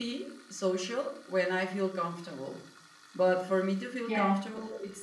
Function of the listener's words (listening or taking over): listening